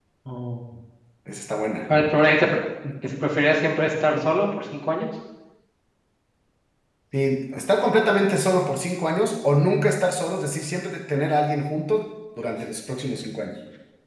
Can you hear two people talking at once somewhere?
No

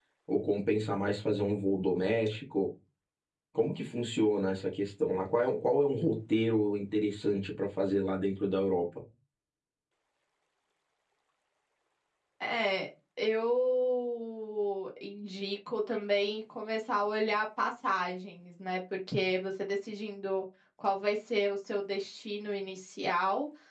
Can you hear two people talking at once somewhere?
No

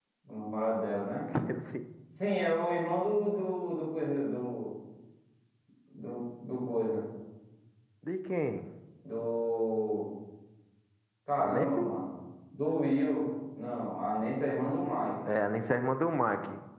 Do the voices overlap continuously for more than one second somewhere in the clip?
No

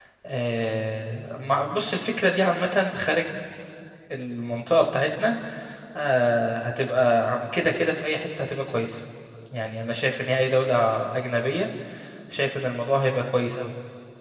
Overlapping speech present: No

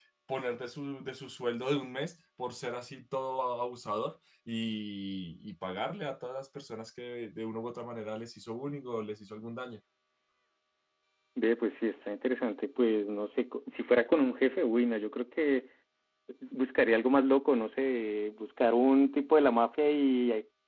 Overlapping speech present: No

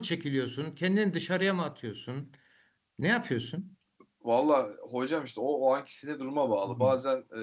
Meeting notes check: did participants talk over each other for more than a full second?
No

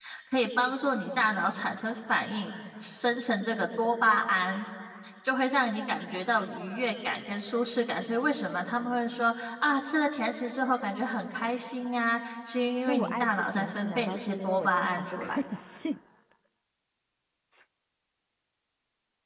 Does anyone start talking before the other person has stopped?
Yes, from 12.9 s

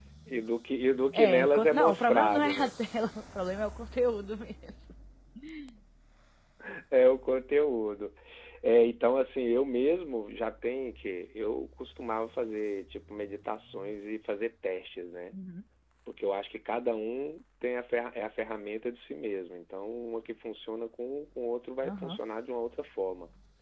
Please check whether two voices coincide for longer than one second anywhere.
Yes, from 1.1 s

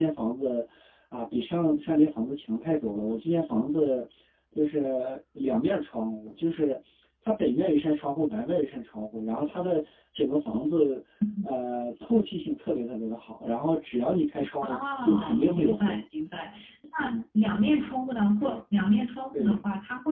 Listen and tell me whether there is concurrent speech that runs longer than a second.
Yes, from 14.6 s

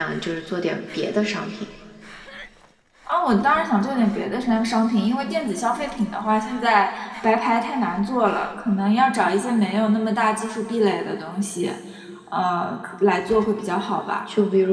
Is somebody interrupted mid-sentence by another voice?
No

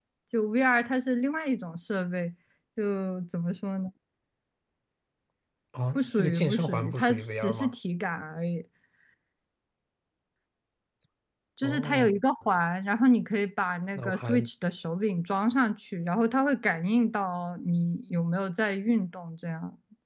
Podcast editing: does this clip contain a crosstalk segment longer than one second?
Yes, from 6.0 s

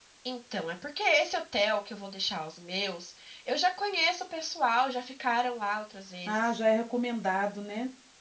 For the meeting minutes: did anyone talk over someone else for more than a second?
No

